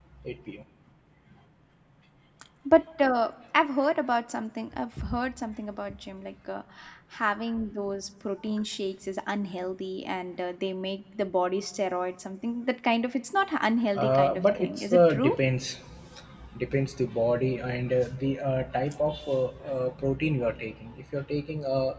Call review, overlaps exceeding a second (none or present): present